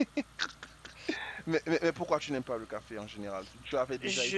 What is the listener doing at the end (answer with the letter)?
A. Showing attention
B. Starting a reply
B